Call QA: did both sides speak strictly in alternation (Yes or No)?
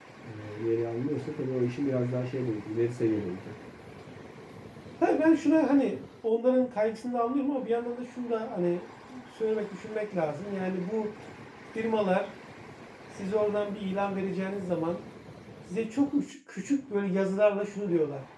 Yes